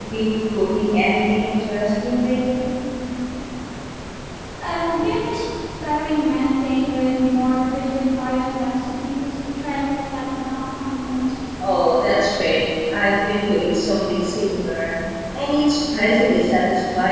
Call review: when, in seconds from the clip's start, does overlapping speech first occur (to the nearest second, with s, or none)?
none